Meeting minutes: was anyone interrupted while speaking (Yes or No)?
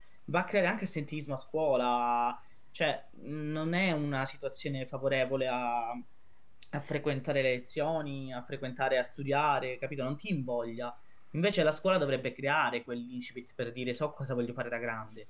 No